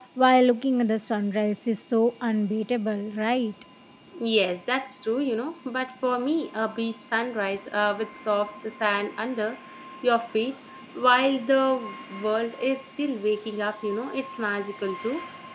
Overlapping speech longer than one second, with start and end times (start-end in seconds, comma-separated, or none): none